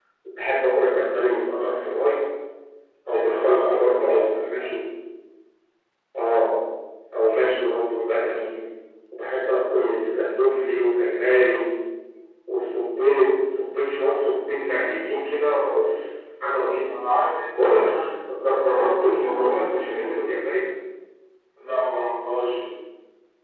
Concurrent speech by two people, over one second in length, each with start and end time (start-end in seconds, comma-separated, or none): 3.1-4.7